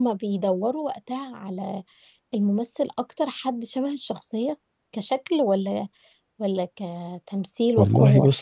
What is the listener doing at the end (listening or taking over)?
taking over